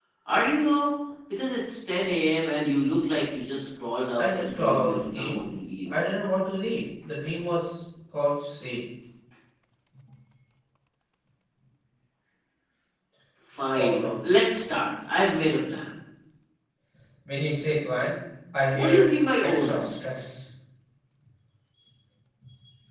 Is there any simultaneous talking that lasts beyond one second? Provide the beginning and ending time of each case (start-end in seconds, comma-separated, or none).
4.2-5.4